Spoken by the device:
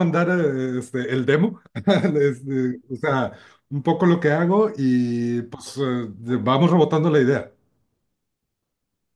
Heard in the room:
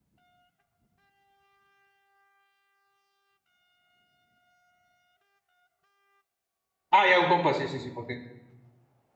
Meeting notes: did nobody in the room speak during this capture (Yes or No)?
No